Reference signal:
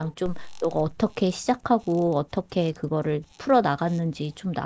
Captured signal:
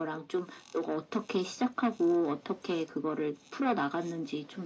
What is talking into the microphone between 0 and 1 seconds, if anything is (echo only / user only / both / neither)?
echo only